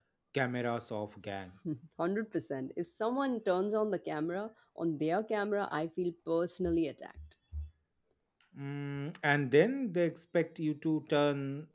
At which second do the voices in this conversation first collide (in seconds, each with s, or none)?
none